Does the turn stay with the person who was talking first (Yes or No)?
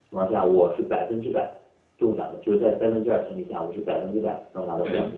No